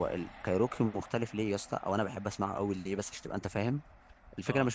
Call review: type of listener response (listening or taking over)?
listening